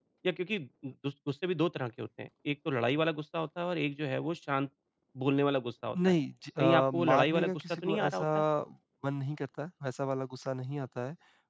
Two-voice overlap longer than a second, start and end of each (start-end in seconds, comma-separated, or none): 6.6-8.2